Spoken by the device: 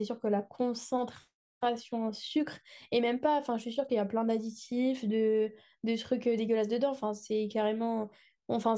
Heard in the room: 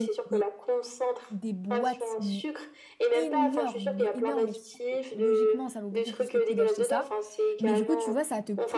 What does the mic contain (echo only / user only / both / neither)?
both